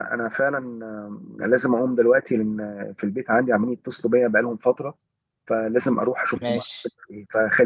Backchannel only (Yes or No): Yes